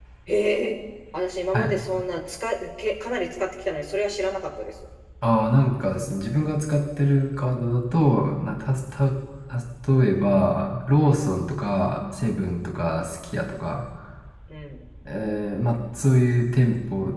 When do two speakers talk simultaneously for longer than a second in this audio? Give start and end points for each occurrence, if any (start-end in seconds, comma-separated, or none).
none